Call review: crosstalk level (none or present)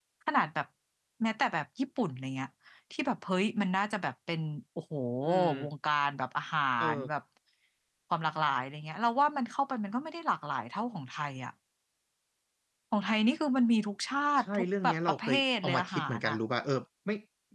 present